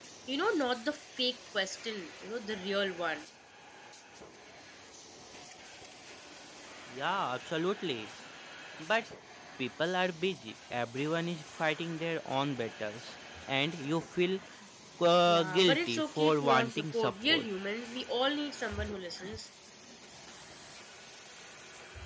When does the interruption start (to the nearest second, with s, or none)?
15 s